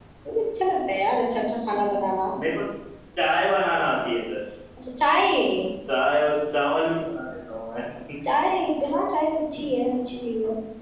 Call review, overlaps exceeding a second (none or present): none